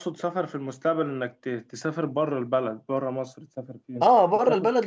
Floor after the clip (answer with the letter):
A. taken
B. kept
A